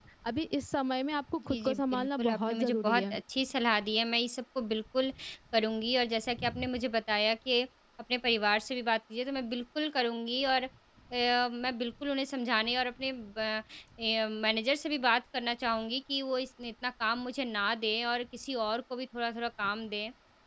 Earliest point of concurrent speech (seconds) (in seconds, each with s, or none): 1.5 s